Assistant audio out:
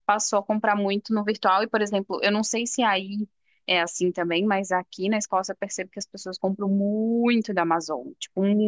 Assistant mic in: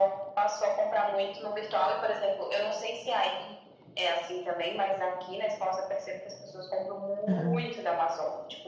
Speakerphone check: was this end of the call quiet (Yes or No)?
No